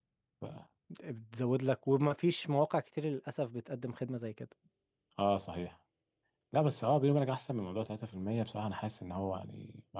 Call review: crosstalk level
none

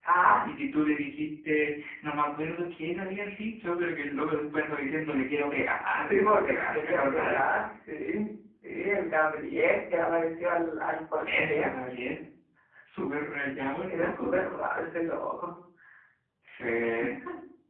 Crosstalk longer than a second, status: present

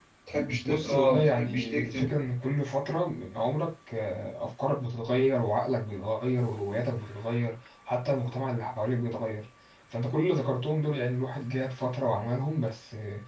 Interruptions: present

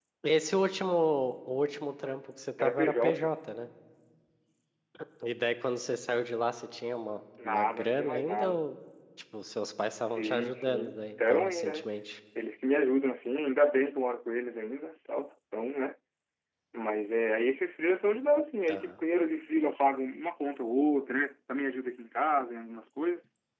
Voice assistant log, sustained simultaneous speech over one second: present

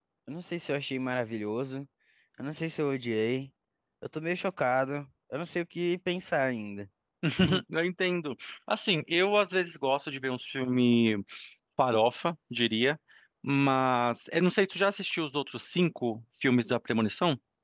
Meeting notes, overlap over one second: none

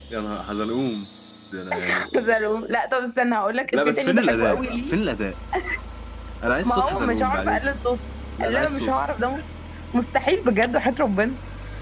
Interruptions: present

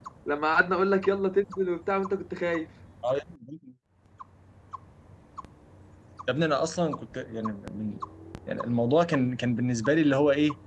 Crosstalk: none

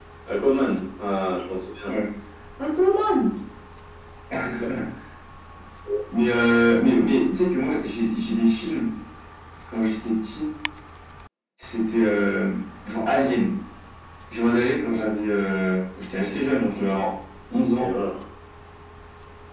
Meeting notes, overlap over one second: none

